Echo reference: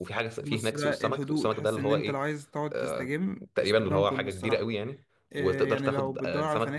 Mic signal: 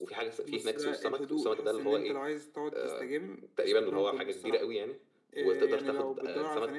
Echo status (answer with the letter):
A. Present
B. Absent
A